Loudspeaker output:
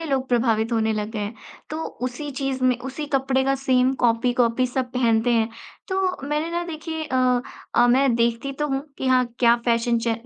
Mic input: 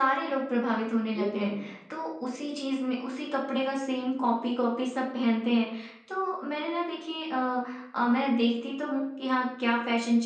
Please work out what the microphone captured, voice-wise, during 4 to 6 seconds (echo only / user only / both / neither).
echo only